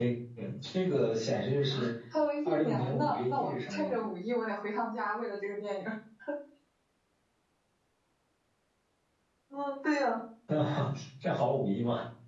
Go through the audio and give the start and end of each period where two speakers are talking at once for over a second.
2.5-3.9

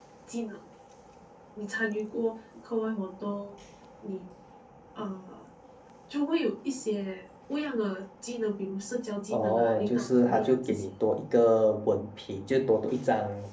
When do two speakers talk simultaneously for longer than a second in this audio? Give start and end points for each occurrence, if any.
9.3-10.9

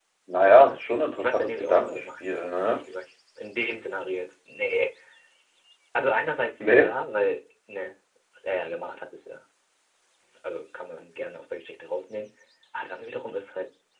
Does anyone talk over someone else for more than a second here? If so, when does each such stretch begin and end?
1.2-2.8

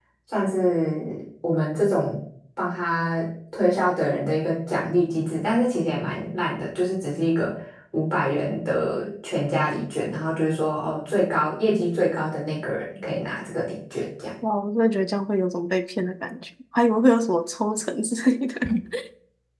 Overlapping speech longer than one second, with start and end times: none

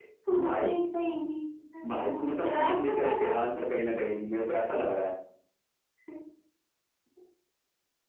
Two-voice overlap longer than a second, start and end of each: 1.9-3.1

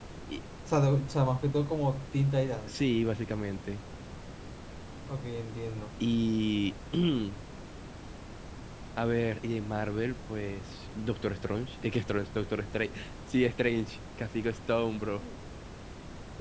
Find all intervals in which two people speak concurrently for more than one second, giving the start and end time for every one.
none

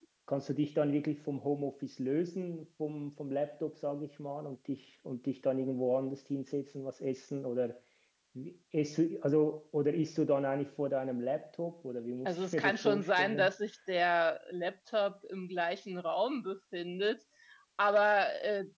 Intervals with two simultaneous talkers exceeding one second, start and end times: 12.2-13.5

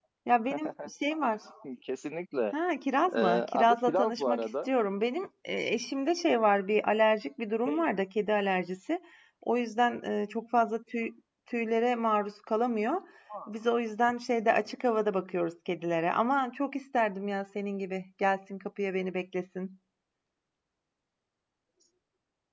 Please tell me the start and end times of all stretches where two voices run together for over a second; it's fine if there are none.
3.1-4.7

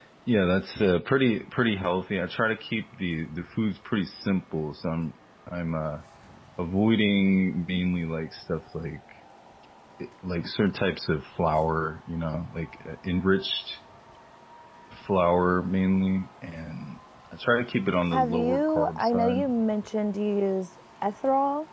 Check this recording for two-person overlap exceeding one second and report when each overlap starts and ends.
18.1-19.5

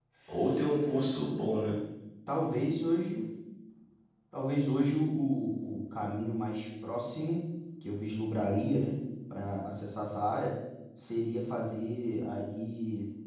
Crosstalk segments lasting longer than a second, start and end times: none

